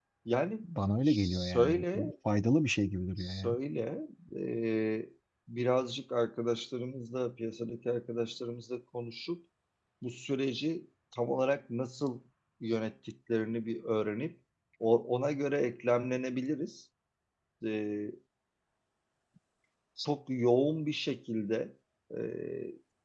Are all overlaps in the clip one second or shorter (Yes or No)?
No